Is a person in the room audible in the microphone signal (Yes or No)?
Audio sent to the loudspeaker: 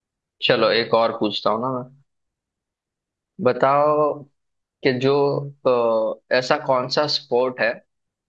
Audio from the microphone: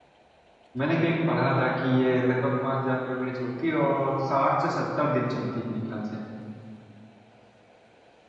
Yes